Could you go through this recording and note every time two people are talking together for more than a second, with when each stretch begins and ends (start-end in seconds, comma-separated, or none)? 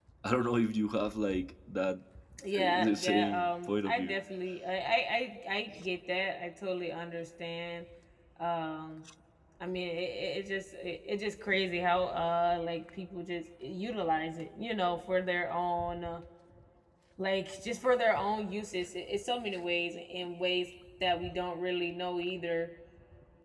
2.6-4.2